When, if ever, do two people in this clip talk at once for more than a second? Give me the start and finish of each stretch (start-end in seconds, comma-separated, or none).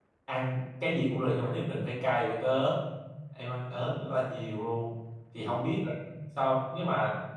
none